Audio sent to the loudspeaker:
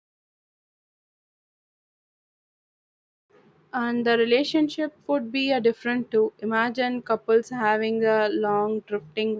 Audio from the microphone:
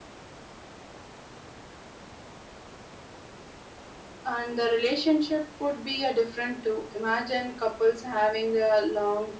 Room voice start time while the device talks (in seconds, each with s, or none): none